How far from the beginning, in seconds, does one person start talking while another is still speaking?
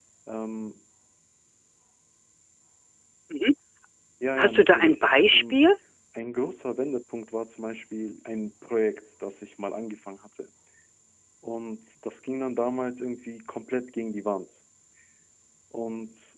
4.4 s

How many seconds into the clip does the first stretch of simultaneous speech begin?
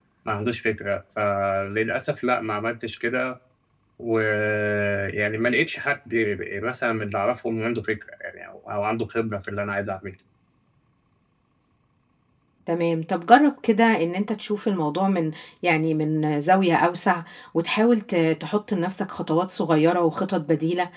none

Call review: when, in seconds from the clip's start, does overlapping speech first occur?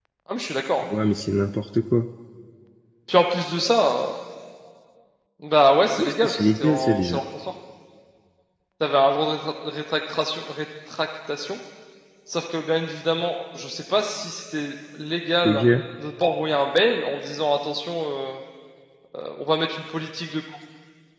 6.0 s

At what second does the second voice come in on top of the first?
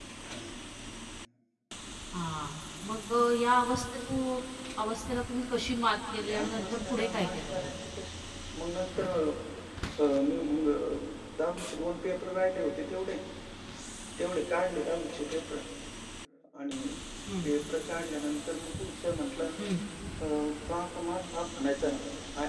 6.2 s

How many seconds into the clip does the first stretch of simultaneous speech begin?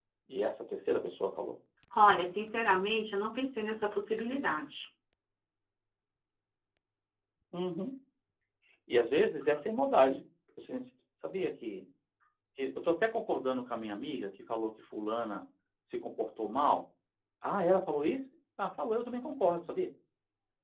none

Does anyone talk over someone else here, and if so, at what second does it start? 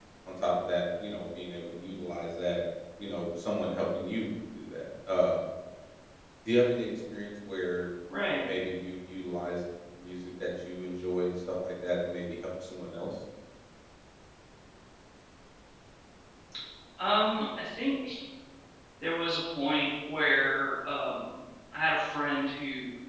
none

